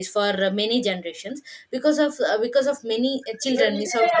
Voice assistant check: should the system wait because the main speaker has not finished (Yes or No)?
Yes